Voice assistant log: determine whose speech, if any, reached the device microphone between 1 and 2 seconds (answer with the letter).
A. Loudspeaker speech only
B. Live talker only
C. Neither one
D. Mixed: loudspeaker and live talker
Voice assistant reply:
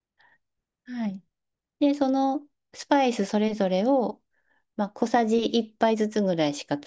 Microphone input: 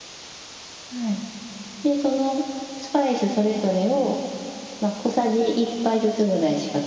A